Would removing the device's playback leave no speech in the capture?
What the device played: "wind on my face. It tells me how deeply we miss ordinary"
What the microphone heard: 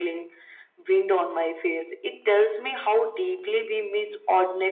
Yes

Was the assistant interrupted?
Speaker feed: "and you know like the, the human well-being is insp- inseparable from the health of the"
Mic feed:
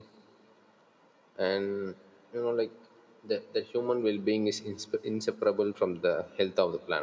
No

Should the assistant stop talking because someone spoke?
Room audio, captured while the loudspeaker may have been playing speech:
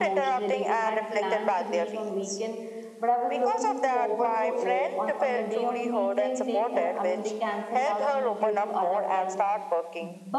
Yes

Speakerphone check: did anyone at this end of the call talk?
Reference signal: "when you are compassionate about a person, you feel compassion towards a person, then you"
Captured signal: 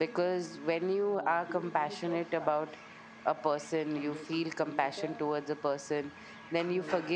Yes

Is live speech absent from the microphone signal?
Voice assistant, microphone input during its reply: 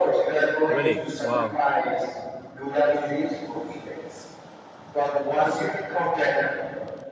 No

